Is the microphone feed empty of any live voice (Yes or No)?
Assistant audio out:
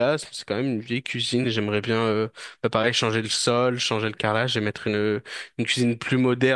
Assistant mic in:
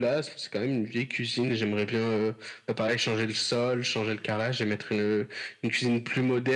Yes